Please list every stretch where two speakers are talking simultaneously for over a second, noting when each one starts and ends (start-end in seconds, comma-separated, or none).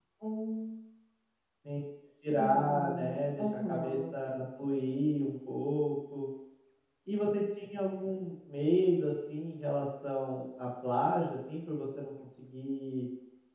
2.4-4.0